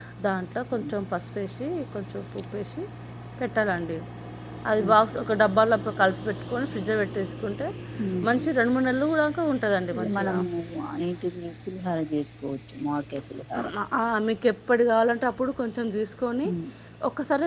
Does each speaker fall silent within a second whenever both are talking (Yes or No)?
Yes